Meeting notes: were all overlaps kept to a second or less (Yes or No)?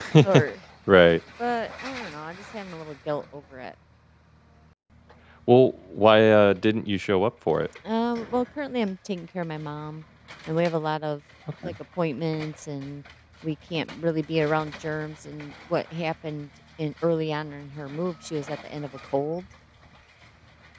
Yes